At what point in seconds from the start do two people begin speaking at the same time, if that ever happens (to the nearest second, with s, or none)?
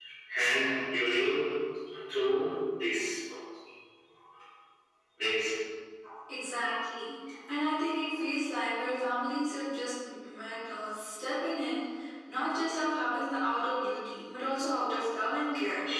none